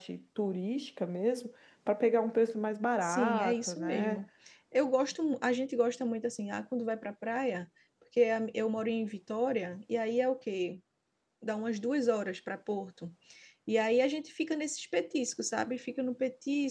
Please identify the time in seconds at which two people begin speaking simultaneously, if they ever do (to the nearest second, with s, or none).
3 s